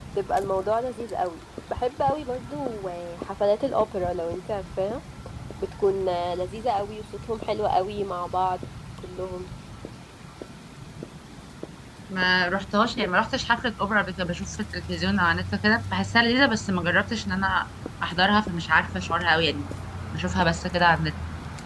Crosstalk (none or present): none